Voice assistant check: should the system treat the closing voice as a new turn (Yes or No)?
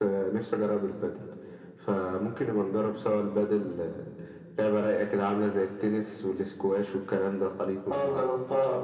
Yes